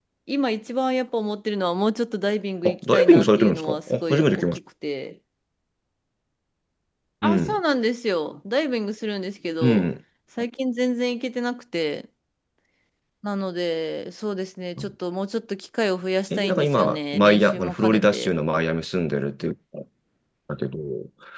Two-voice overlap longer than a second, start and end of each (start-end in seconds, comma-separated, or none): 2.6-4.6, 16.4-18.3